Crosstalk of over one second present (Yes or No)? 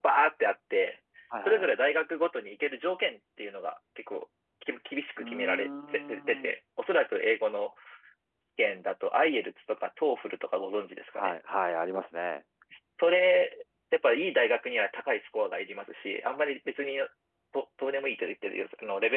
Yes